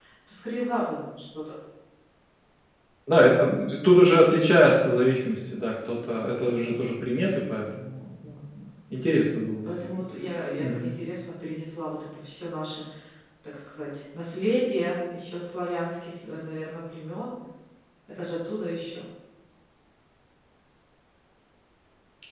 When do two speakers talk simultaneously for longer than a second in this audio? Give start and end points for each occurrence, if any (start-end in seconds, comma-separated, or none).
none